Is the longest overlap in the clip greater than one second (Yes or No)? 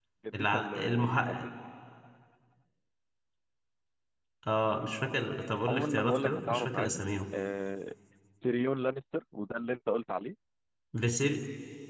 Yes